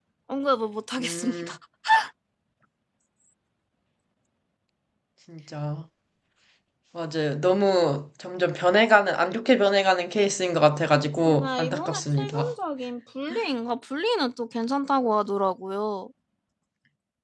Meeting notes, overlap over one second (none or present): present